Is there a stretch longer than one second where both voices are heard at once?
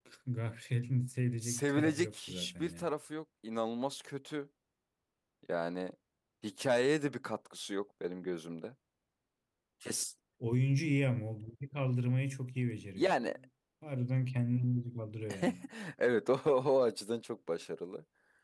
Yes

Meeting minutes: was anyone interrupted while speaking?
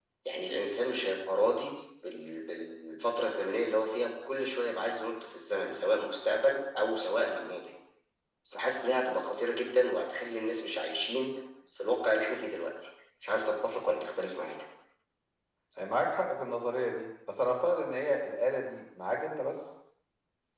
No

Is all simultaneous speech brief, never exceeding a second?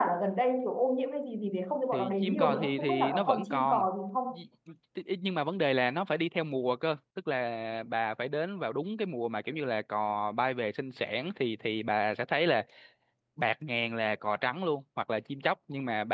No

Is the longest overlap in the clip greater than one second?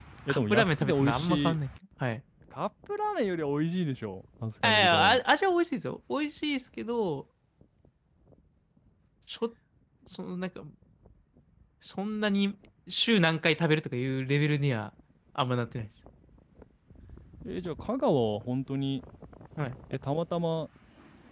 Yes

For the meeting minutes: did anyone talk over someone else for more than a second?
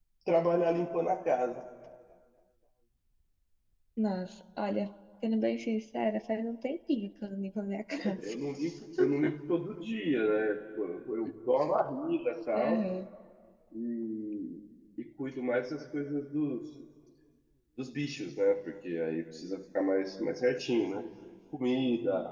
No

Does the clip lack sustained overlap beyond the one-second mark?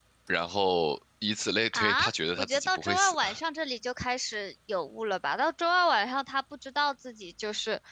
No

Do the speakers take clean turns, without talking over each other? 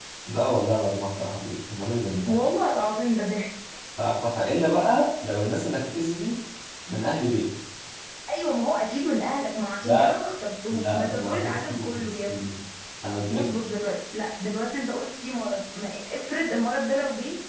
No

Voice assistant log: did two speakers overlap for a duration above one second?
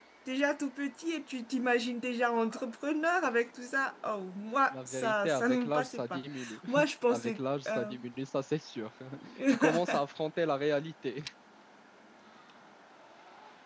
Yes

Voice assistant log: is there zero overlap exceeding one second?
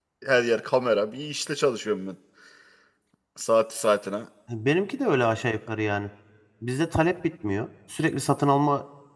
Yes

